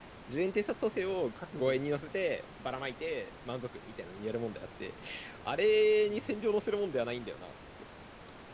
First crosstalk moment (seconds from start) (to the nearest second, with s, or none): 1 s